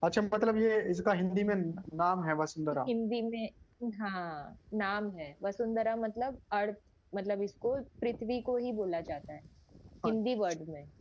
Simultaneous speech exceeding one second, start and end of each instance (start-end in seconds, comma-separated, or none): none